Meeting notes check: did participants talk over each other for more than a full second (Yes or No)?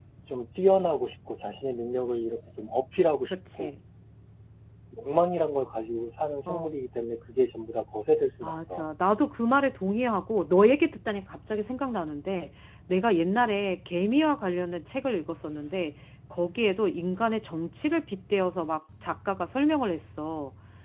No